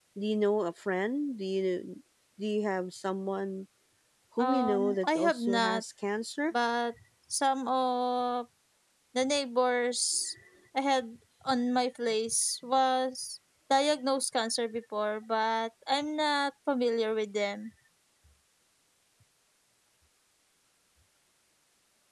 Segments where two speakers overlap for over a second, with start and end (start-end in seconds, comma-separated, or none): 4.4-5.8